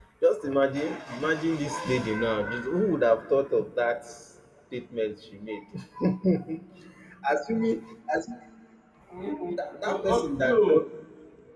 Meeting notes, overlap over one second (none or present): present